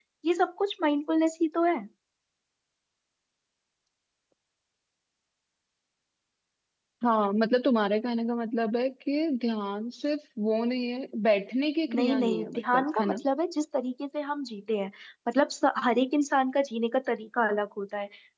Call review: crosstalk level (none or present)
present